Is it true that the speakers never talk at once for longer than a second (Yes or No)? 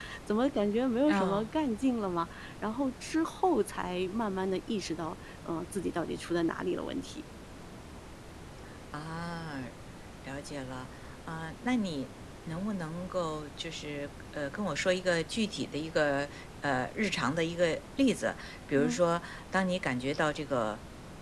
Yes